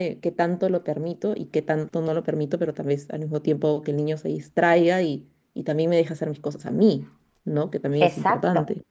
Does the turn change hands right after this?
Yes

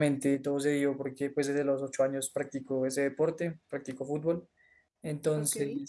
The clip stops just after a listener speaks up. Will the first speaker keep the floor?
Yes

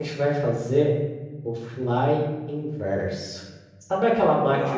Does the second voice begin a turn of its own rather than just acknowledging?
No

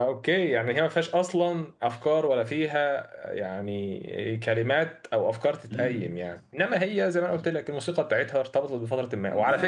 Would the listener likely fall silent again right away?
Yes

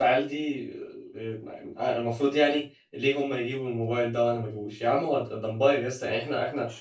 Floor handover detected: No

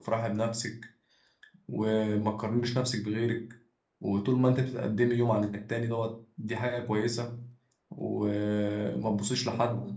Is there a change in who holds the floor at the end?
No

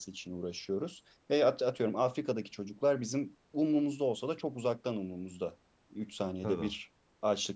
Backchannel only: Yes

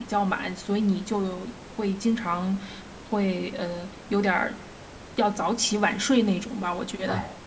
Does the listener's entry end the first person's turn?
Yes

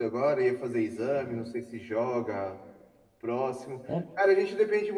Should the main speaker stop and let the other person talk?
No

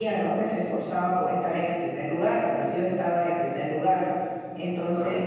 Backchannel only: Yes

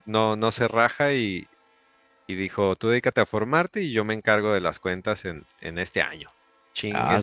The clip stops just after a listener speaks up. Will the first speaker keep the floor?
No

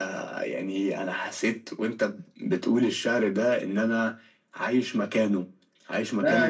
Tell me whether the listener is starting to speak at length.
Yes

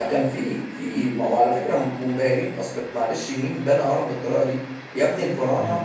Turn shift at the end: No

